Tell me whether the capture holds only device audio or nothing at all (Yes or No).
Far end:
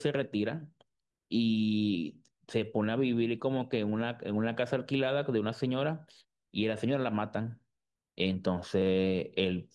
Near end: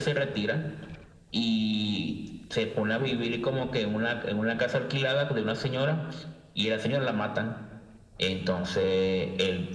Yes